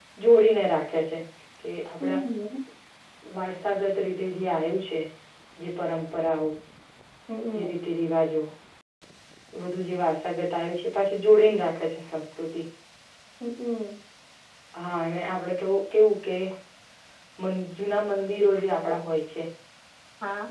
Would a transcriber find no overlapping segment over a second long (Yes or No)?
Yes